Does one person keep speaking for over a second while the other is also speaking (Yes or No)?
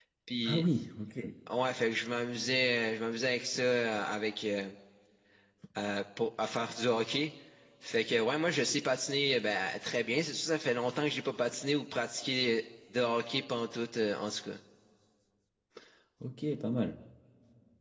No